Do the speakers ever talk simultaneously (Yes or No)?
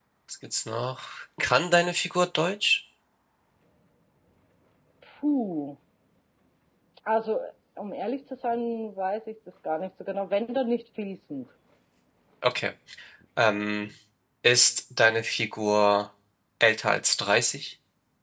No